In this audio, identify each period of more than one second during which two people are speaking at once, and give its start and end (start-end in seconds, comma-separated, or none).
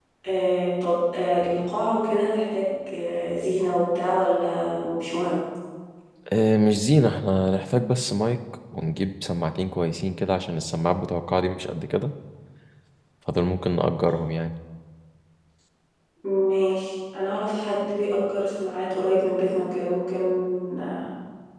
none